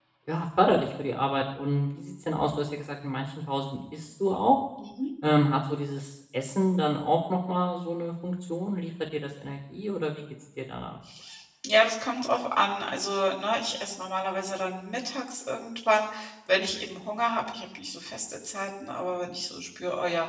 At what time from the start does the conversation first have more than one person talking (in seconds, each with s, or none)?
none